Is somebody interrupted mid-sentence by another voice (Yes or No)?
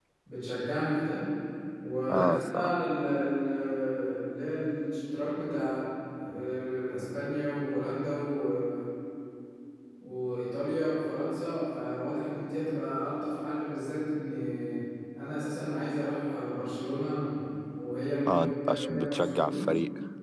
Yes